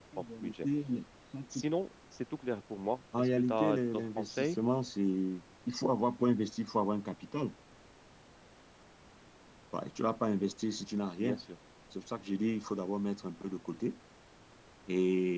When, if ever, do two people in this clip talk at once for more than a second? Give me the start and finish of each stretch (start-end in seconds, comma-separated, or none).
3.2-4.6